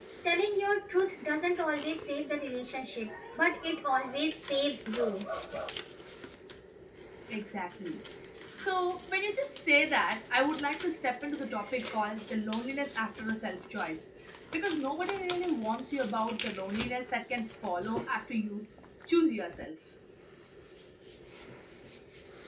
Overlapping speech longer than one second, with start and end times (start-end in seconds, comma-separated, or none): none